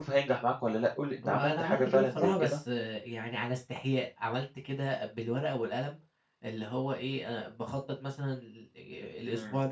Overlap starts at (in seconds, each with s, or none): 1.3 s